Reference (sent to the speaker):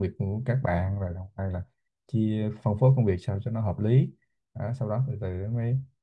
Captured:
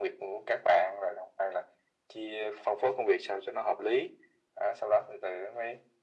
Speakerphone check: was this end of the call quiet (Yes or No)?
Yes